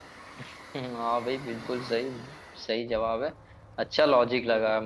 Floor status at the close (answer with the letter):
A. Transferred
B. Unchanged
B